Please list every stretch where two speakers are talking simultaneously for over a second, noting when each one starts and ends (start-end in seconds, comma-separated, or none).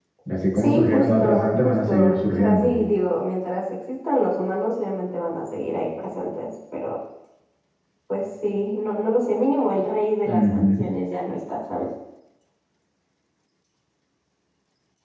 0.6-2.7